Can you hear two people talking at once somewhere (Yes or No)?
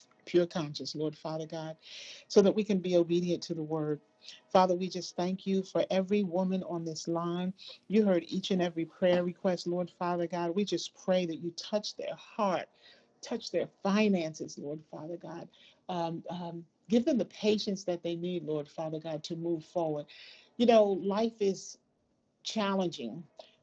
No